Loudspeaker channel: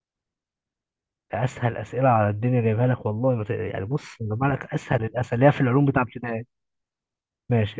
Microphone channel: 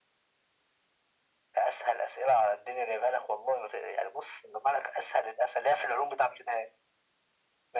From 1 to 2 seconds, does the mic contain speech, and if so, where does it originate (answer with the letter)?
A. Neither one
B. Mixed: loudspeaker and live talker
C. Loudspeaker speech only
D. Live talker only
C